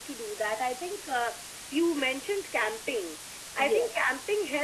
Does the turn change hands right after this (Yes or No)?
No